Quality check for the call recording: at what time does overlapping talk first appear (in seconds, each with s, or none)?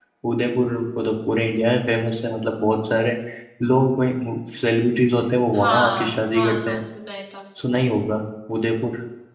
5.5 s